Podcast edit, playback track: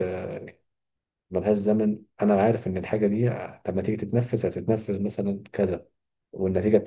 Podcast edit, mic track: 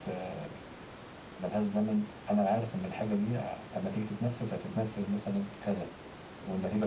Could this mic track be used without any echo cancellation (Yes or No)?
No